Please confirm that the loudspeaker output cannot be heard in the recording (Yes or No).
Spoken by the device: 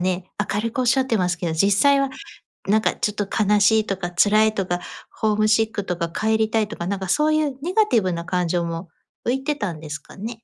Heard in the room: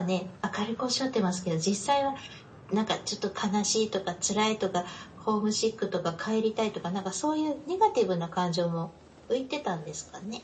No